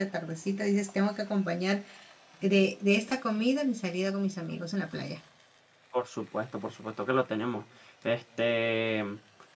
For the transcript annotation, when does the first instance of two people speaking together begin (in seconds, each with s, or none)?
none